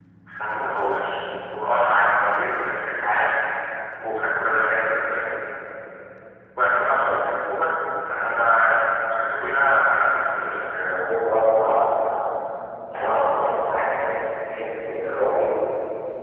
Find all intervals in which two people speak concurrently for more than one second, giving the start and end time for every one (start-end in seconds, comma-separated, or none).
none